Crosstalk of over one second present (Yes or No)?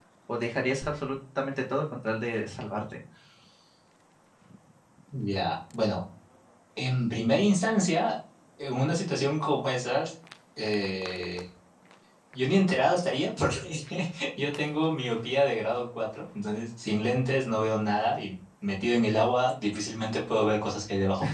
No